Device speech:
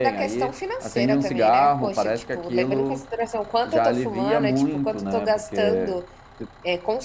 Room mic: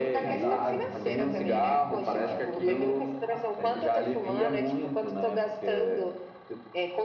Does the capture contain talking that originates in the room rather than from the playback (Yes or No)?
Yes